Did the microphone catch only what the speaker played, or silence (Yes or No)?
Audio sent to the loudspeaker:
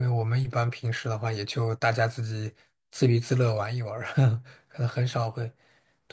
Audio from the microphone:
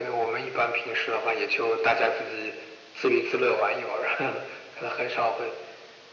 Yes